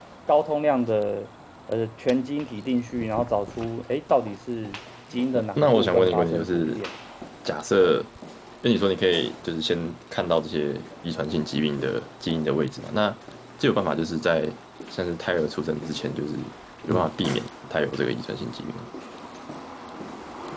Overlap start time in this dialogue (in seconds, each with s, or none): 5.3 s